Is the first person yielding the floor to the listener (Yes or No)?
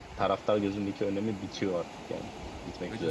Yes